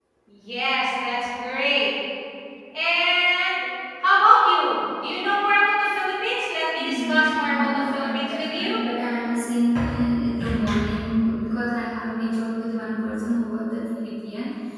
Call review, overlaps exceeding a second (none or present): present